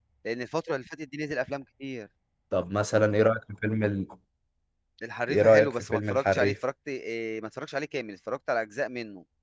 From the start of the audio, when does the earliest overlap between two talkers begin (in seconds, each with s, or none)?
5.3 s